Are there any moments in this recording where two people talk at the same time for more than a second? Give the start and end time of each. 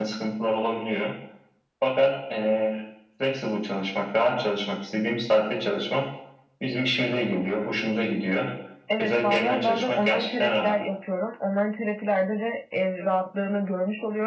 9.0-10.7

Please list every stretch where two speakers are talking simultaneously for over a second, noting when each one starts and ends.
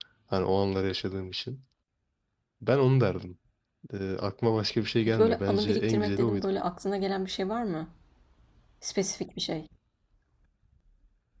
5.0-6.4

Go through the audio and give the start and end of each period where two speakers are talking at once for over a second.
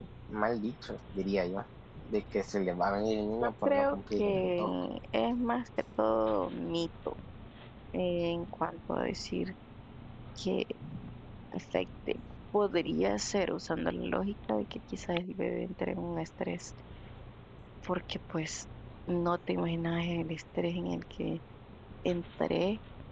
3.4-4.6

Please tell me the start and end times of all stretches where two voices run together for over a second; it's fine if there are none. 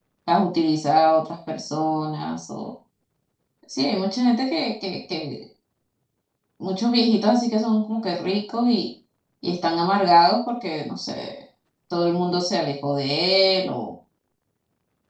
none

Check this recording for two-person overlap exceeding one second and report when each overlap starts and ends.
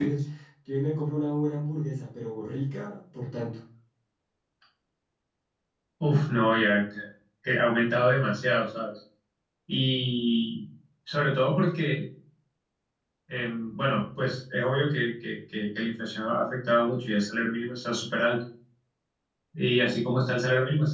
none

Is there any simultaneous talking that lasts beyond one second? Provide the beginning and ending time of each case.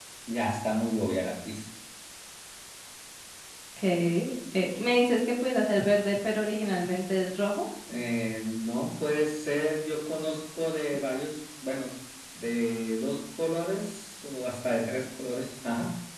none

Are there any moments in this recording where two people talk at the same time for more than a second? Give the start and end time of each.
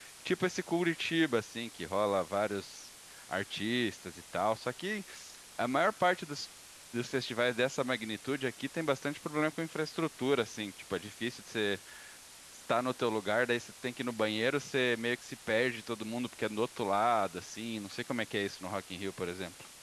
none

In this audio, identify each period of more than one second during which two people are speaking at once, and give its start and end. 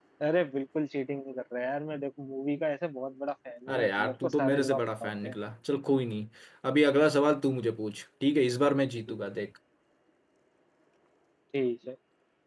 3.7-5.4

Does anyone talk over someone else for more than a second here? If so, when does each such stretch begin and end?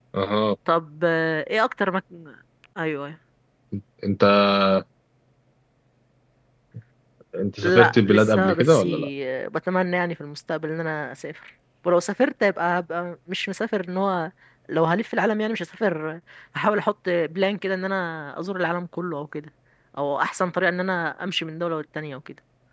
7.6-8.9

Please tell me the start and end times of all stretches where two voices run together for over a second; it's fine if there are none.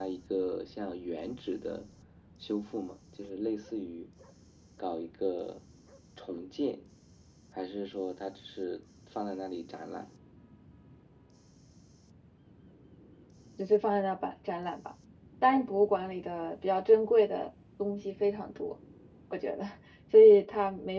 none

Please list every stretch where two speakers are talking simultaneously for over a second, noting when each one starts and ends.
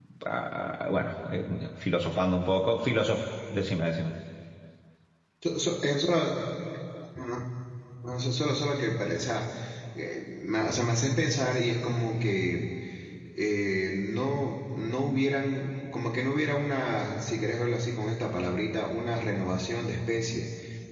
none

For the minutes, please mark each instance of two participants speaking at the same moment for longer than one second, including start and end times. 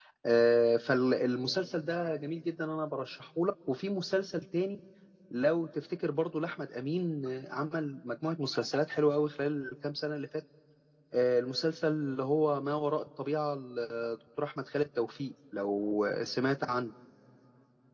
none

